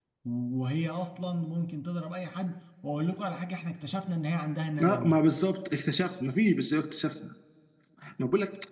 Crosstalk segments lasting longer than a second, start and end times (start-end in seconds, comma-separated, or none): none